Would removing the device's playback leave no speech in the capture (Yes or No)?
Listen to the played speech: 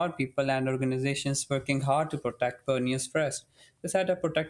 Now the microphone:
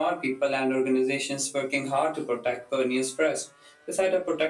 Yes